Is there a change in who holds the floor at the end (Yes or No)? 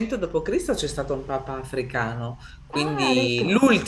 No